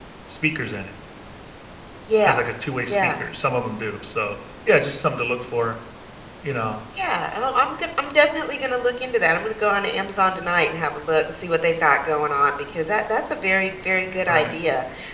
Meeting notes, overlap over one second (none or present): none